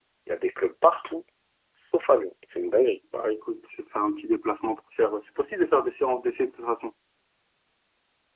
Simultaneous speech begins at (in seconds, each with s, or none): none